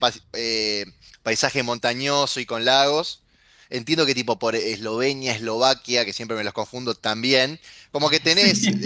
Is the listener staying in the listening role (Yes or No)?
Yes